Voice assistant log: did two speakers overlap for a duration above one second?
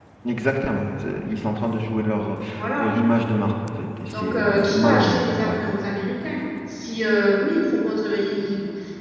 Yes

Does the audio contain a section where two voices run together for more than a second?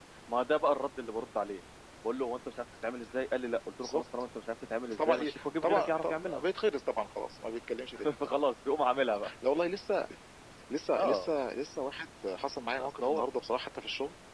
Yes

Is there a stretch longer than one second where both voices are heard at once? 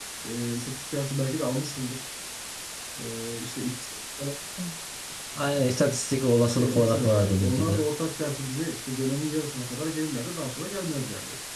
Yes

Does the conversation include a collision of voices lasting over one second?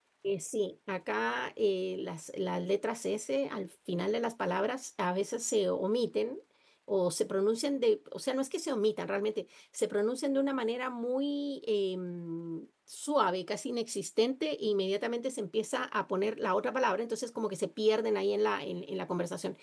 No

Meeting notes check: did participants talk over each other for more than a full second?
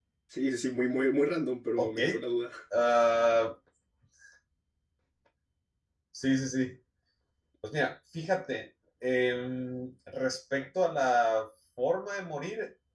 No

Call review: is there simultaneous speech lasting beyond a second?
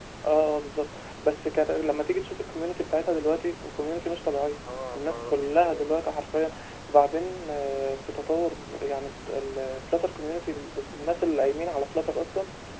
Yes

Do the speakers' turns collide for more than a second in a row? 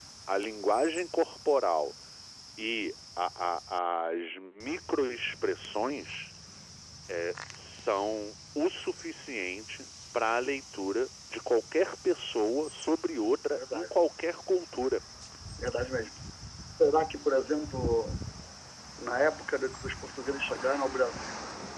No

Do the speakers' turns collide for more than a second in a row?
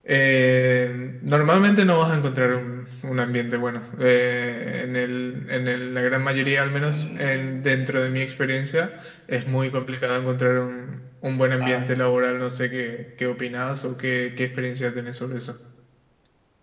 Yes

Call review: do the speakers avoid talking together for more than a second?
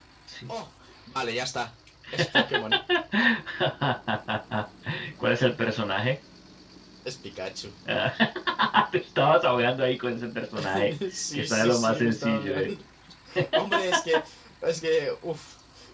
No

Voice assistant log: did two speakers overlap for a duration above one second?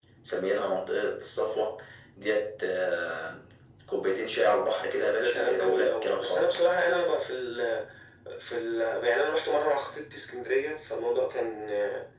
Yes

